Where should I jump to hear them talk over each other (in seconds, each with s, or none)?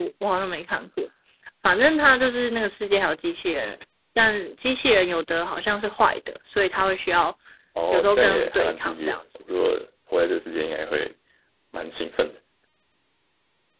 7.9 s